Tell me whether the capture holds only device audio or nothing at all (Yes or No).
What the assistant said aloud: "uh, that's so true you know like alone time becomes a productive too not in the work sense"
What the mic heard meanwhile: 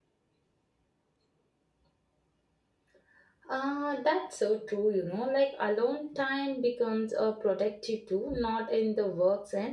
Yes